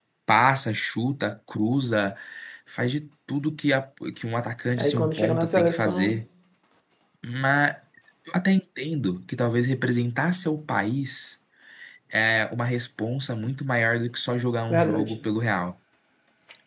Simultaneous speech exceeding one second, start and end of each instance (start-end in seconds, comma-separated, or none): 4.8-6.1